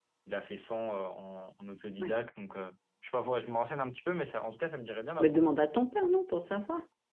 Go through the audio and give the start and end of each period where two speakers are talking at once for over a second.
none

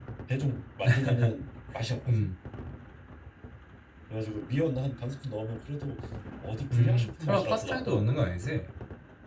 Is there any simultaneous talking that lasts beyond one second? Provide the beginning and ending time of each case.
6.7-8.2

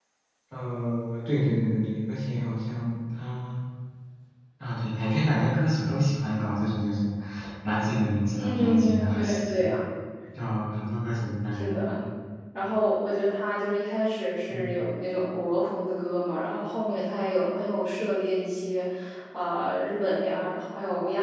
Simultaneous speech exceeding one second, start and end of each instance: 8.3-9.7

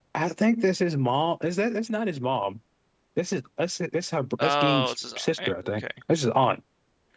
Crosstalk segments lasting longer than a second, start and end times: 4.4-5.8

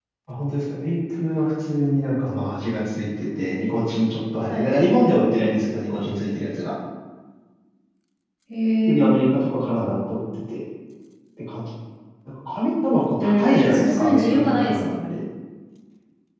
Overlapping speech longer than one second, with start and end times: 13.2-15.2

